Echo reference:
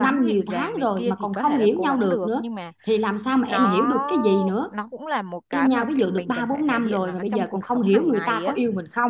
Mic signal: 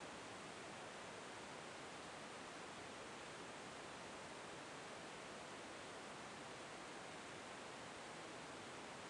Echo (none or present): none